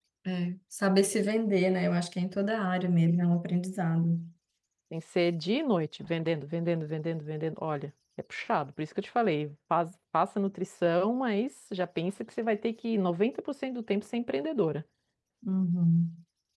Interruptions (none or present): none